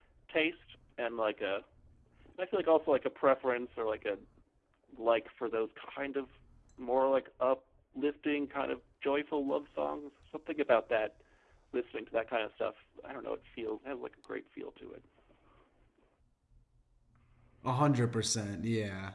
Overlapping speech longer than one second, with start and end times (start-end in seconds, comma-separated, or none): none